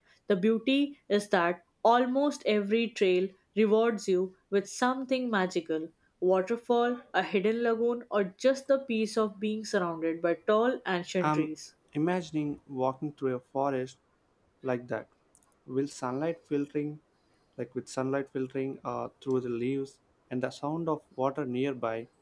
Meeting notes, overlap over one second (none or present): none